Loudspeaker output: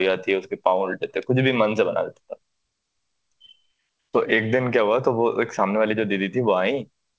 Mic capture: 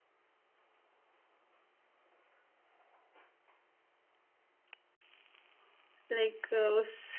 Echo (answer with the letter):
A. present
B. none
B